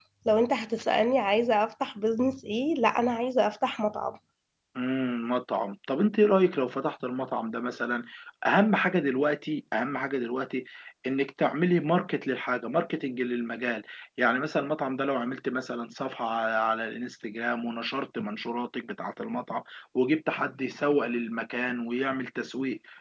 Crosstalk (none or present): none